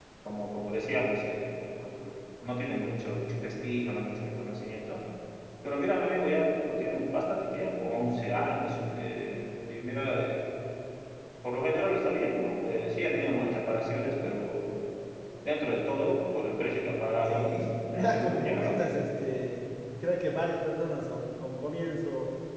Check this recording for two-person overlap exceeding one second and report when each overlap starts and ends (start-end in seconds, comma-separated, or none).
17.2-19.0